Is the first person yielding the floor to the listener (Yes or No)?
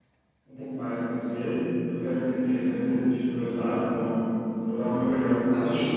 Yes